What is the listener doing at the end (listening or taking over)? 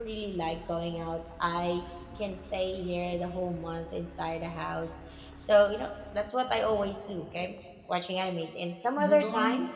taking over